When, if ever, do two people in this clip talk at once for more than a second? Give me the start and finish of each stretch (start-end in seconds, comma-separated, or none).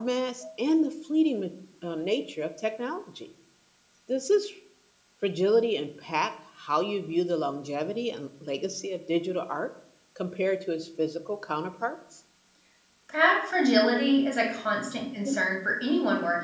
none